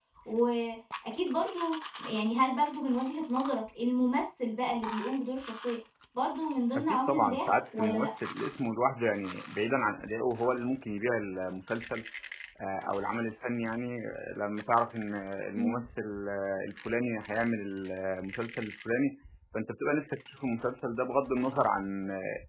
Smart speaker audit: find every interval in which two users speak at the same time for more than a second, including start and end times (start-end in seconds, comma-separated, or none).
6.7-8.1